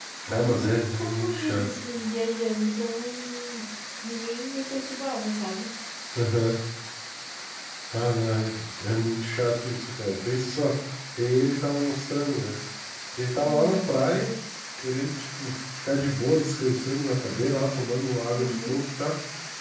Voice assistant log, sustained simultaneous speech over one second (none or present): present